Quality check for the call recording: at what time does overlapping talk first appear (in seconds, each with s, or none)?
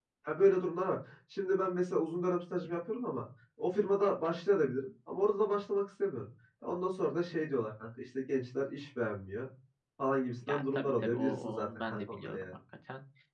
10.5 s